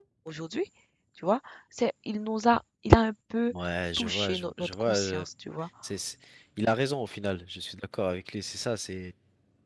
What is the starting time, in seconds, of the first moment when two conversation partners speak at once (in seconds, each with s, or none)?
4.0 s